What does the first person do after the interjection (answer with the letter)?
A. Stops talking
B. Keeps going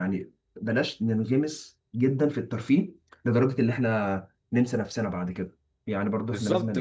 A